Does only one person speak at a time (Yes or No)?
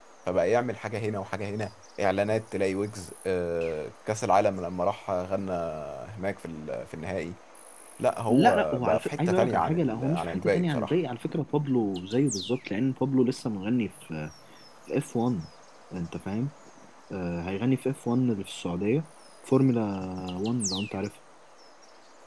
No